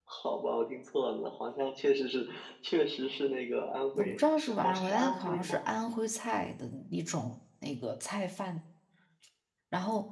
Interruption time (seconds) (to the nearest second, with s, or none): 4 s